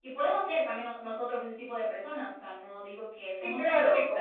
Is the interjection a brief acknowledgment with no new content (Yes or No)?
No